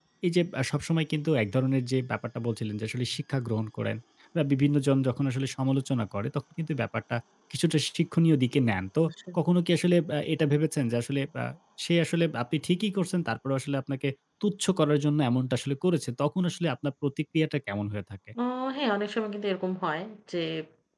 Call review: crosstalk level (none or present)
none